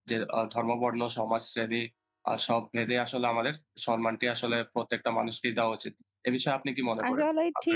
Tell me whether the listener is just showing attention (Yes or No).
No